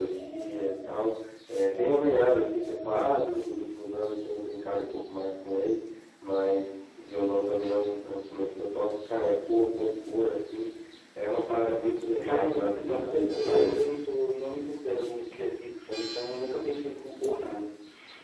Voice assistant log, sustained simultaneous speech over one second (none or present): present